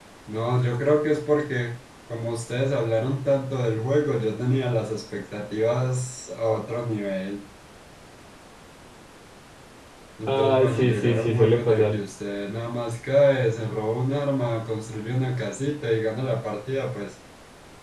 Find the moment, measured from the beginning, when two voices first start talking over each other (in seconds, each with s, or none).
10.3 s